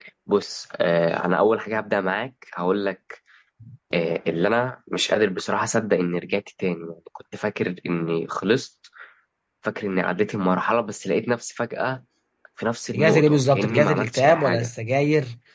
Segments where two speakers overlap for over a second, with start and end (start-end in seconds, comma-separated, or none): 12.9-14.7